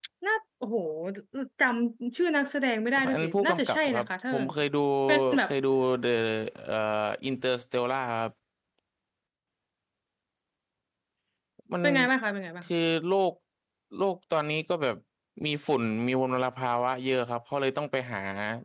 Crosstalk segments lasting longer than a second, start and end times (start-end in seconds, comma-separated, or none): 3.1-4.6